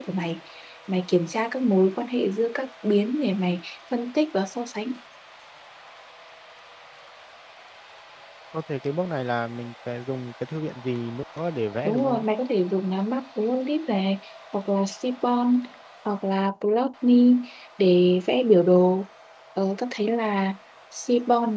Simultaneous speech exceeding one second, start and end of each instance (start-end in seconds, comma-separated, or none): none